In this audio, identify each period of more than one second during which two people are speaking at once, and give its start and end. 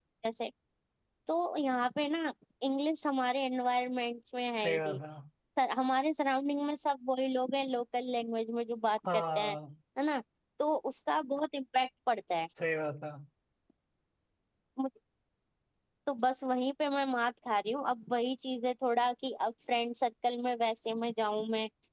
none

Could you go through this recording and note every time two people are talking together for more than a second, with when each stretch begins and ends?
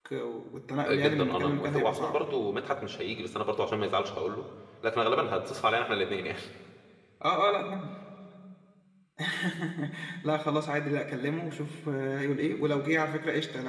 0.8-2.2

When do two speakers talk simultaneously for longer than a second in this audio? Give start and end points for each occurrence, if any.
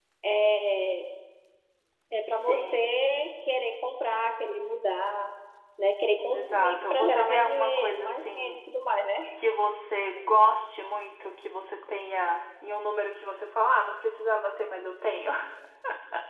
6.3-8.6

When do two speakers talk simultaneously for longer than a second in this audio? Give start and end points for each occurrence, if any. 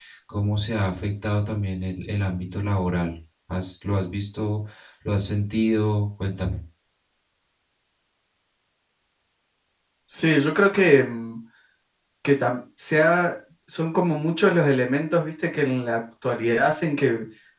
none

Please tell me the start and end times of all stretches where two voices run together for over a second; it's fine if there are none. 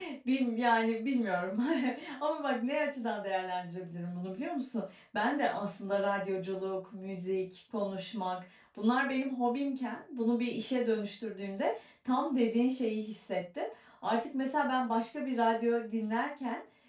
none

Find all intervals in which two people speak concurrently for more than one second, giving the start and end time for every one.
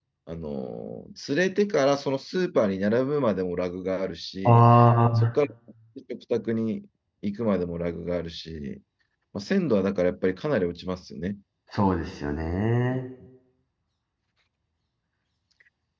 none

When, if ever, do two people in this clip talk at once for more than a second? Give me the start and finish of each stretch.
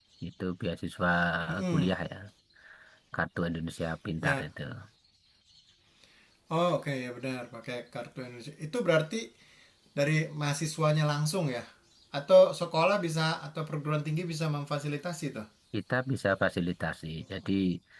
none

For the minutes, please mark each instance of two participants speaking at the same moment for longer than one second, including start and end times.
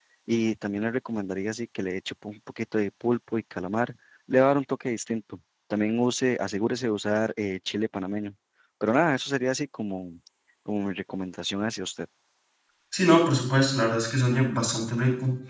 none

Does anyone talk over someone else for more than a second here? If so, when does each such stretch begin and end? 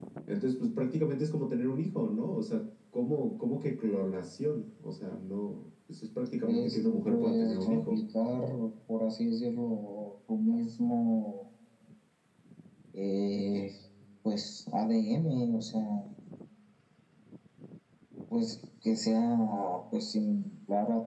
6.5-8.0

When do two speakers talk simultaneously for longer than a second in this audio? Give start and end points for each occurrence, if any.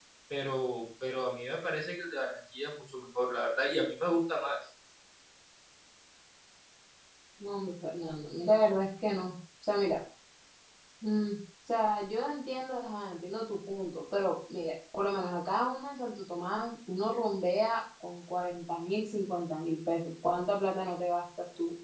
none

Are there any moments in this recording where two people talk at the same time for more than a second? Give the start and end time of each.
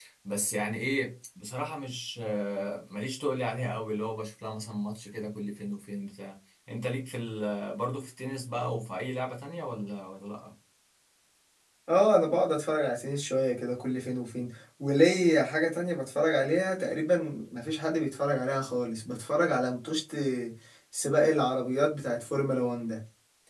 none

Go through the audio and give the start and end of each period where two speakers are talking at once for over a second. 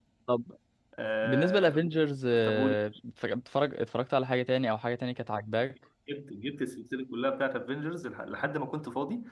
none

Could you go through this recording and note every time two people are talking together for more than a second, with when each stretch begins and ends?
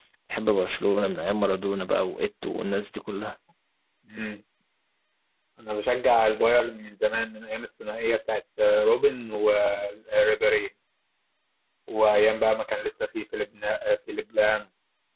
none

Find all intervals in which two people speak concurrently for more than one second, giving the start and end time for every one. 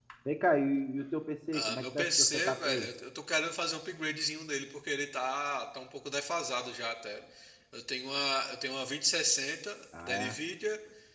1.5-2.9

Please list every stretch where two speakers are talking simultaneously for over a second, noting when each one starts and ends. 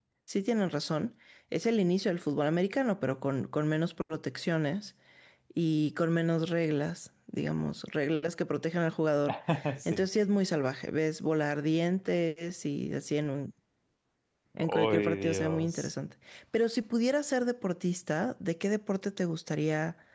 14.6-15.9

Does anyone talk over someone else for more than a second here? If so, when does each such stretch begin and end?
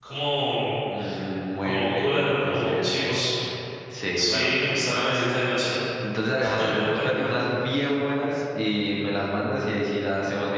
1.6-2.9

